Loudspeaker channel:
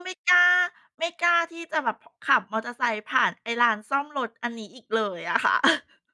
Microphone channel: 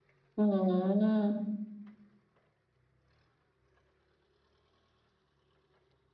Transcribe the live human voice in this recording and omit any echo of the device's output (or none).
อืม